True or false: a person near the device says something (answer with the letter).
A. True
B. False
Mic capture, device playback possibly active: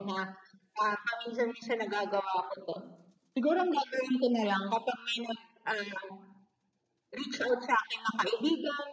B